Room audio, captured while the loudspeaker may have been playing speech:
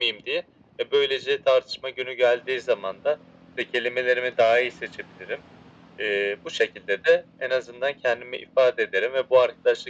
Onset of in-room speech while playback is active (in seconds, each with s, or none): none